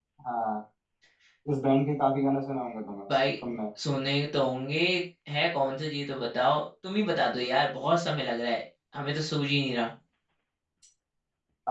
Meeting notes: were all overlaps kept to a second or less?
Yes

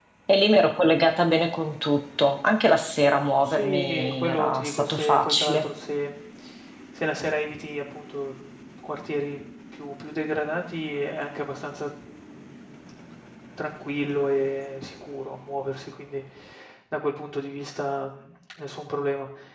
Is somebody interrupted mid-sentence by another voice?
Yes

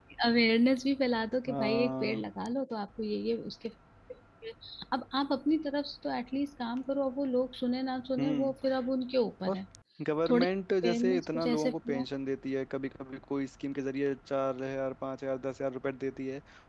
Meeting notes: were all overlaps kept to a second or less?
No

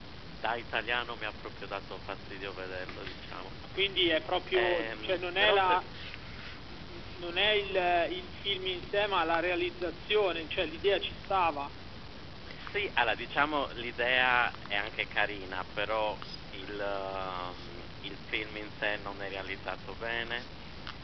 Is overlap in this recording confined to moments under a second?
No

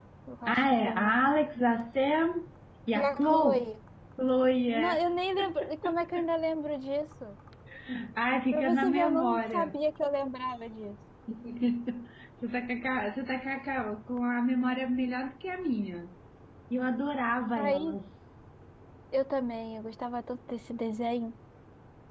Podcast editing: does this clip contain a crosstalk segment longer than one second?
Yes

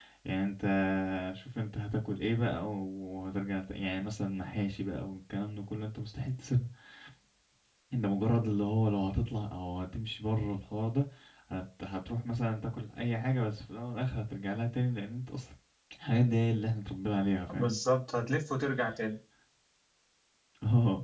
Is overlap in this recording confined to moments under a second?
Yes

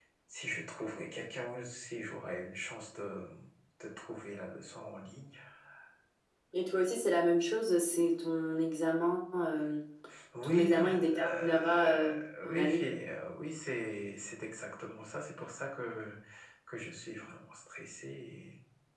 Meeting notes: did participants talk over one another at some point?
Yes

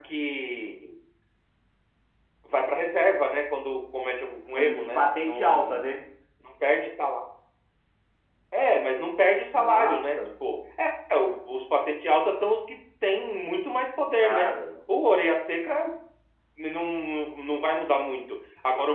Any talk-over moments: Yes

